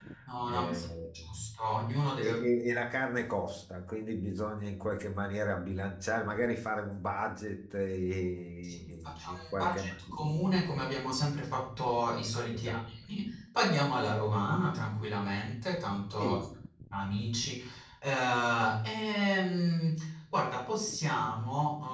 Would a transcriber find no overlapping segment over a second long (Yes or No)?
No